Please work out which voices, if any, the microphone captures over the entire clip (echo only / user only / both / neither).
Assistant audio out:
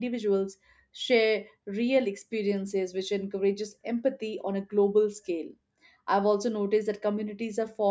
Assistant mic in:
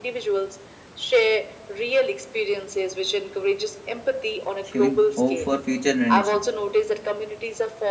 both